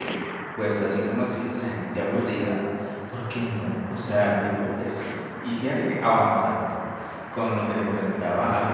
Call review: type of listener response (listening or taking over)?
taking over